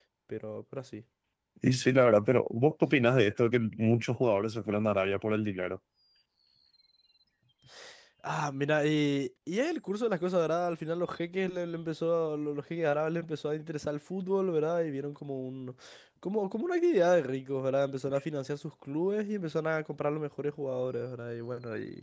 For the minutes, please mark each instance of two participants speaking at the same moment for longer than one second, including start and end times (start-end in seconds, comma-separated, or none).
none